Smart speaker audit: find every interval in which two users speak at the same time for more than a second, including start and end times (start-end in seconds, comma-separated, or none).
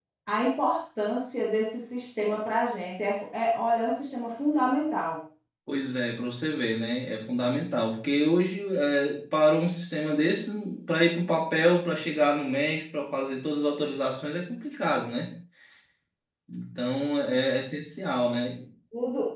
none